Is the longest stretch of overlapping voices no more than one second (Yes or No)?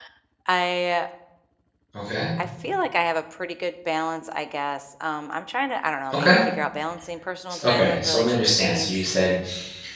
No